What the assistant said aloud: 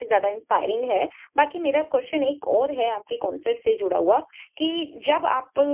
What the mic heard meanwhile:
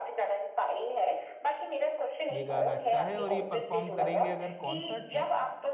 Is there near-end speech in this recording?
Yes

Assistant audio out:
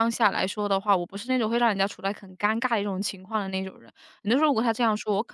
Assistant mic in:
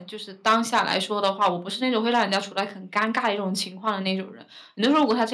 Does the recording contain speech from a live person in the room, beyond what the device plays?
No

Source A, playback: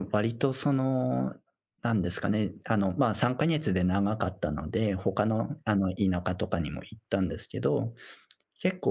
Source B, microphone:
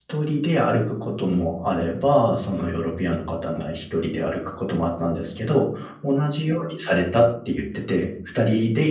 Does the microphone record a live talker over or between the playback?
Yes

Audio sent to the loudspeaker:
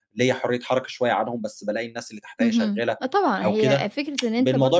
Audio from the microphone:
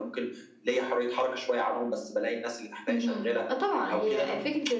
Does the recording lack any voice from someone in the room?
Yes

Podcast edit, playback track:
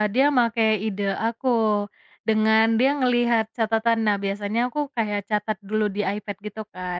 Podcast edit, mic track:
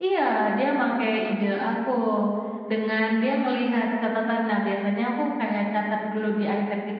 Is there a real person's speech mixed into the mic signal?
No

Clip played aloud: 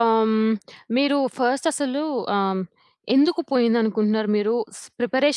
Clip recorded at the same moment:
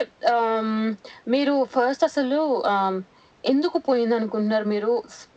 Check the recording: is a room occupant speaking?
No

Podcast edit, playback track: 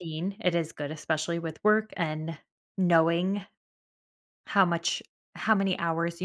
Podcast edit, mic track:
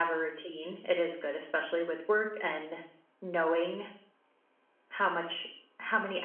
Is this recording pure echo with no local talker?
Yes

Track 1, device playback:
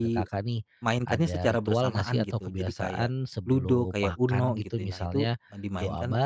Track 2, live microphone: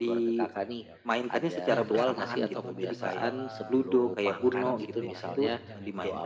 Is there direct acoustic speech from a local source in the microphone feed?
Yes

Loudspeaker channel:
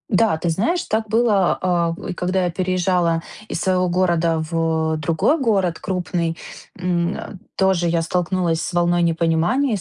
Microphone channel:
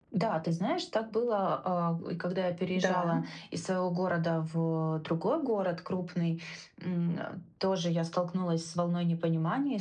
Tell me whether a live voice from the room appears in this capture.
Yes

